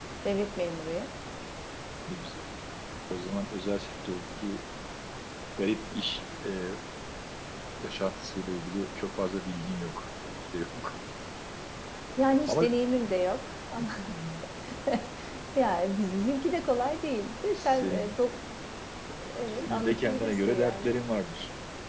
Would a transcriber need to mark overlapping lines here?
Yes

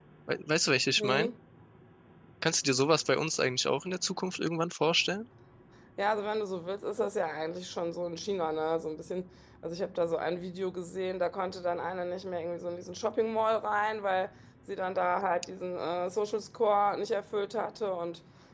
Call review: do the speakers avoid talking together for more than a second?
Yes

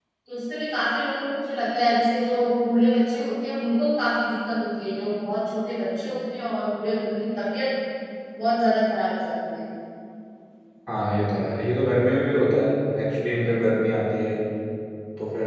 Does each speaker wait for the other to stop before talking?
Yes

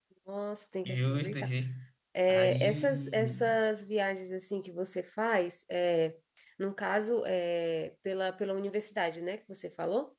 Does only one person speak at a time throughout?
No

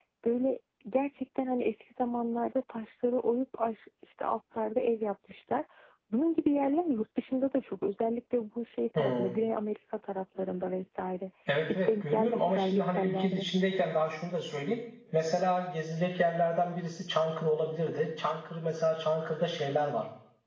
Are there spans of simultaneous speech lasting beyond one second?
Yes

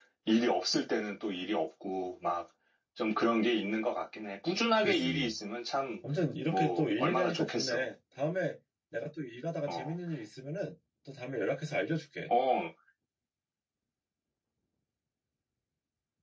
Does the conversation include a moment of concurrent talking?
Yes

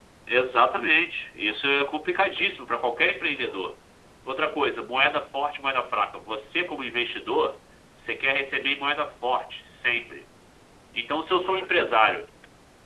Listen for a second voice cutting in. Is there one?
No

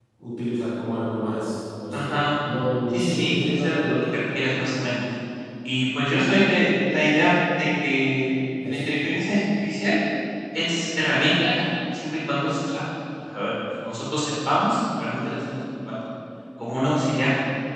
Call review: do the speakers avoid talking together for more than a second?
No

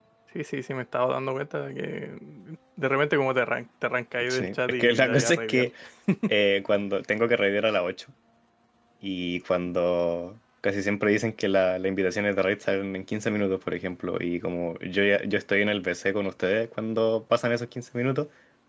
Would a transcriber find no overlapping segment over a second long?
No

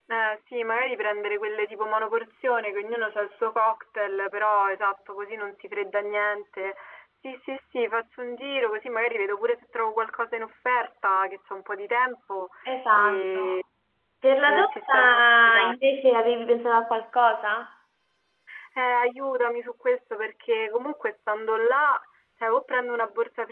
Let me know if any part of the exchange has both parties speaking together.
Yes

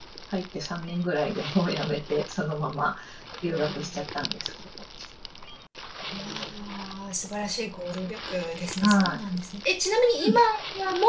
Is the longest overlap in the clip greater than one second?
No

